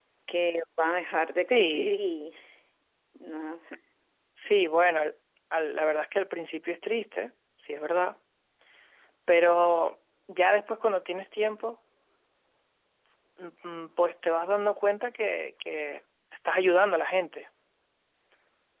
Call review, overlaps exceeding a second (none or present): none